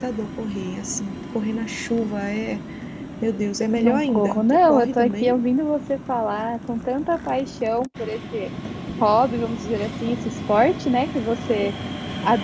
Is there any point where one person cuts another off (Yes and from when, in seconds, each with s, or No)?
Yes, from 3.8 s